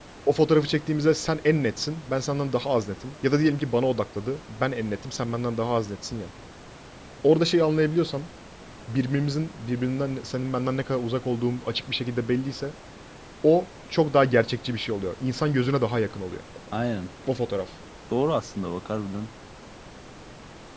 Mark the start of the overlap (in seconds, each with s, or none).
none